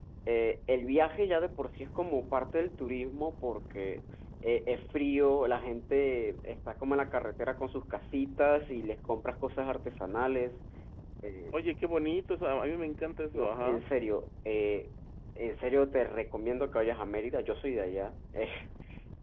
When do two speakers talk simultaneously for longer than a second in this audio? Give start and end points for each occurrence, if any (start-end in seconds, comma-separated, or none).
none